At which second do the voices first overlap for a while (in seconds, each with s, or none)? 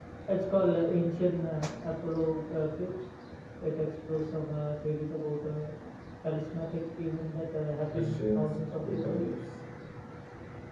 7.9 s